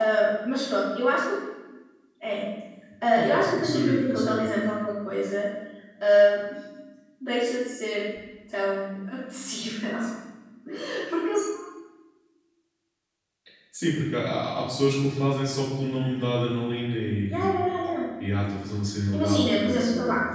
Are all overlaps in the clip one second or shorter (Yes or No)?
No